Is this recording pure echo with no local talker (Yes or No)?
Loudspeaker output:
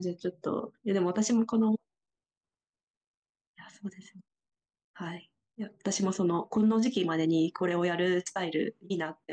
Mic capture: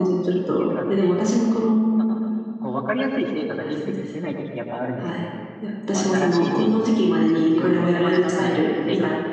No